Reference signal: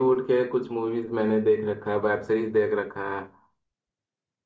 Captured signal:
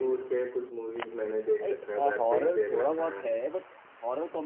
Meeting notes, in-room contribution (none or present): present